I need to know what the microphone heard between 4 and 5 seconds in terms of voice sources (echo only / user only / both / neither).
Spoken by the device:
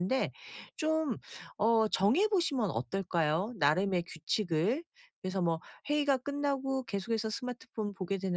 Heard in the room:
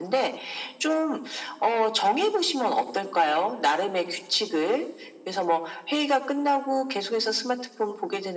echo only